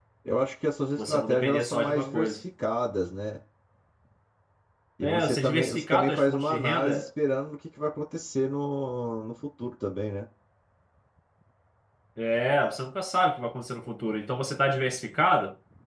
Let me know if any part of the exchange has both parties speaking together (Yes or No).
Yes